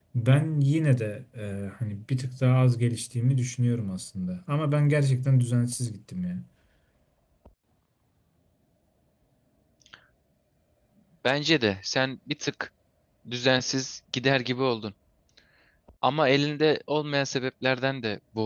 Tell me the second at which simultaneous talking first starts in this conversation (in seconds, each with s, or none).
none